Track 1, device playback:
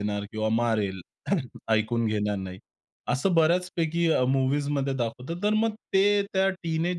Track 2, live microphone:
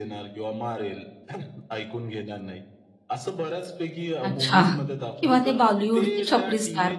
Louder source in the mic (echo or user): user